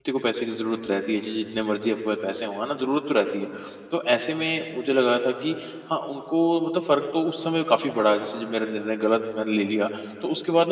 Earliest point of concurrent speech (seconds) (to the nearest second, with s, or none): none